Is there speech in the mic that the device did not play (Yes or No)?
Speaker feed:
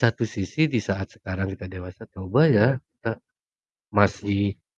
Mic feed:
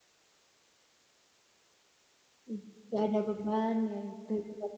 Yes